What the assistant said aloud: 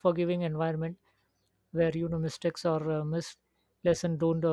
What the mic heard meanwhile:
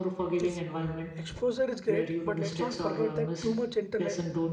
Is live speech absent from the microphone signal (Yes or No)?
No